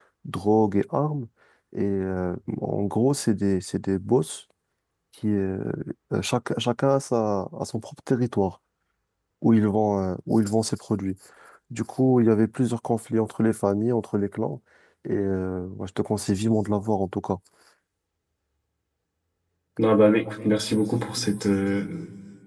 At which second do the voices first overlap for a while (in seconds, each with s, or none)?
none